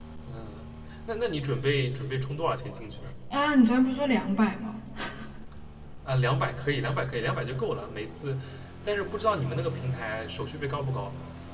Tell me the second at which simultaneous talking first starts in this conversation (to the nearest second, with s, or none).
none